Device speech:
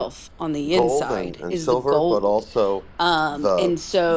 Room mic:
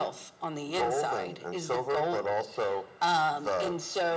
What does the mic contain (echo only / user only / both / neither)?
echo only